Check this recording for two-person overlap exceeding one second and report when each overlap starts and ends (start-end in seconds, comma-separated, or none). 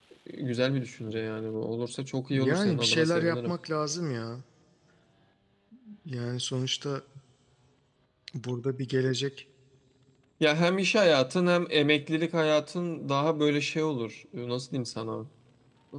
2.3-3.5